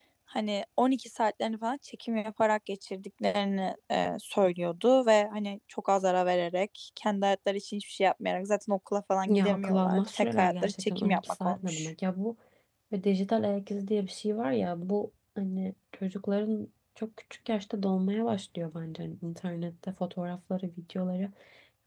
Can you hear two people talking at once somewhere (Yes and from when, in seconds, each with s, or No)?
Yes, from 9.3 s